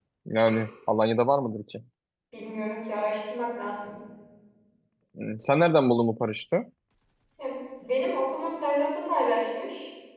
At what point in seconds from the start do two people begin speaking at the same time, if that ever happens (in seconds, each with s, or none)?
none